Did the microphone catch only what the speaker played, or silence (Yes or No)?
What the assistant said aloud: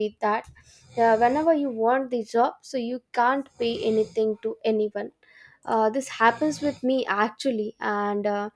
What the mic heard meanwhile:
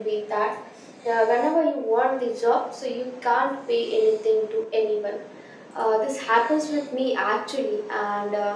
Yes